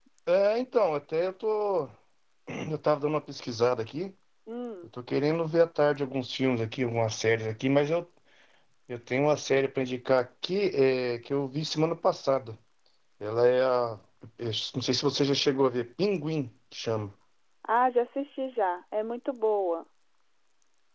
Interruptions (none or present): none